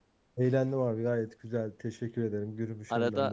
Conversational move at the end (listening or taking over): taking over